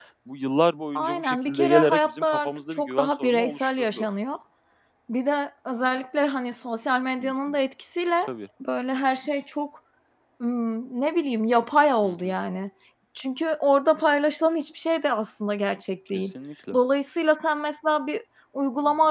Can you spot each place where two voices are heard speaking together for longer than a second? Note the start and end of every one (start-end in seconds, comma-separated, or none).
0.9-4.1